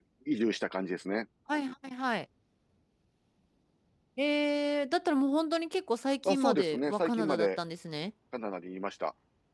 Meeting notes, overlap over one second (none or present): present